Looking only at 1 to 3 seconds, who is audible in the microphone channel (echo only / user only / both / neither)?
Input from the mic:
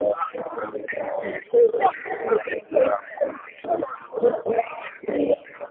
echo only